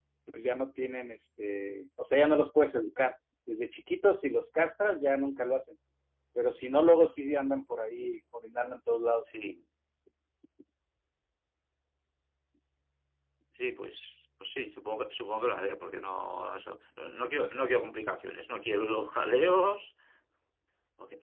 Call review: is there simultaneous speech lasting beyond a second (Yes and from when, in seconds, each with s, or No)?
No